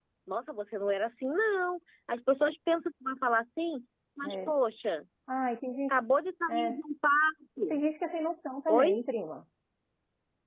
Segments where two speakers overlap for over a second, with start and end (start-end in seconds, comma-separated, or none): none